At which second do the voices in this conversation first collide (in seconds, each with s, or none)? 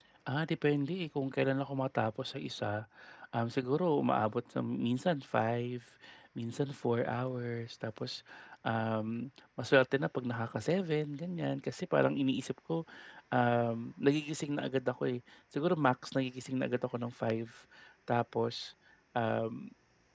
none